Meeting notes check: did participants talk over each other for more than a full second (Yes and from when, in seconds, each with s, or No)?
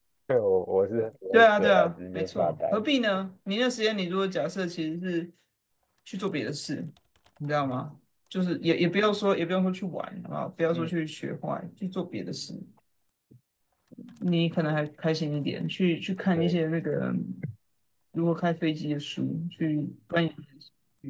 Yes, from 1.3 s